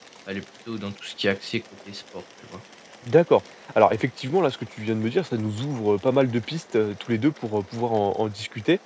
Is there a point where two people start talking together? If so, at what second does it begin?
none

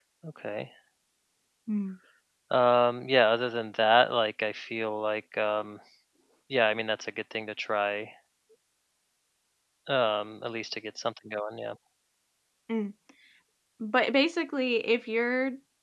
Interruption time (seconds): none

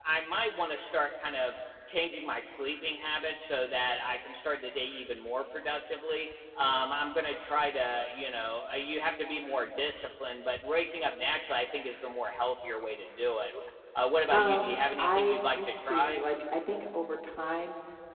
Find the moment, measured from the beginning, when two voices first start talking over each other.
14.3 s

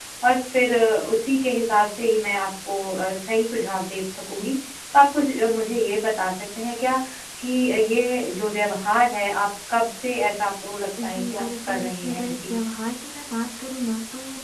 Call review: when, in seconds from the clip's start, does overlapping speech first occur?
11.0 s

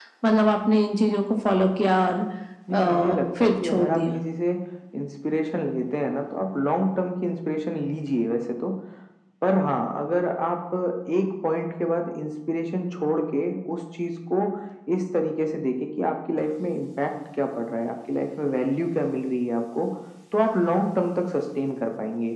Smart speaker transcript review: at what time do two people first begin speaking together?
2.7 s

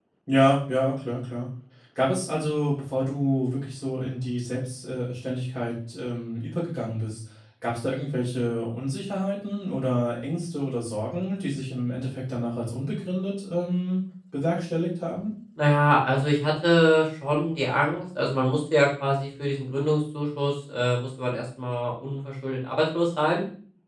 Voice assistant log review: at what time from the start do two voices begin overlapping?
none

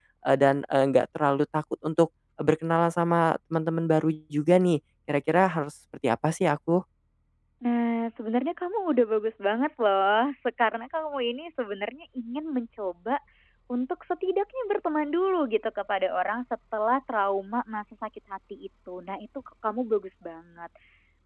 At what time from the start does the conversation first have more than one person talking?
none

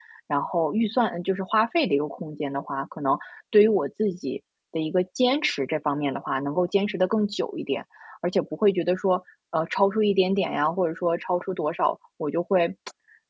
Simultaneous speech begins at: none

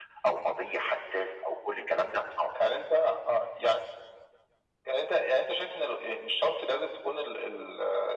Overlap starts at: none

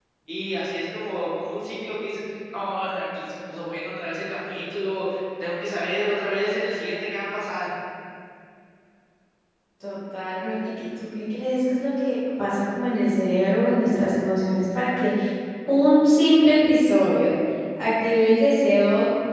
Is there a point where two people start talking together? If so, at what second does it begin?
none

